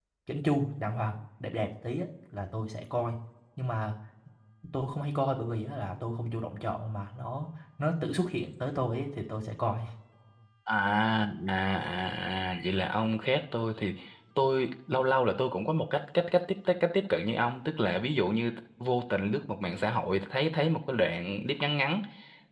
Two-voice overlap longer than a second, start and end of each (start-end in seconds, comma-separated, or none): none